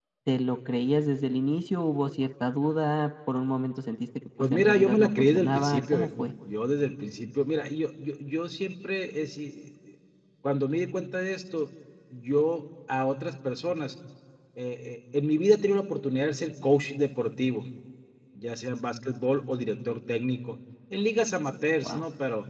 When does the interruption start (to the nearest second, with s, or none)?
4 s